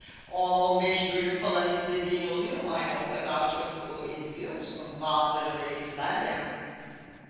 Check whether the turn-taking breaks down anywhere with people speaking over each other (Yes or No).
No